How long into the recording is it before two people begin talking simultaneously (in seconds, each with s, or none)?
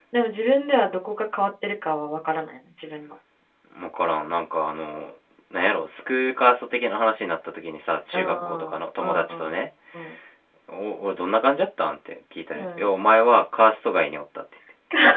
8.1 s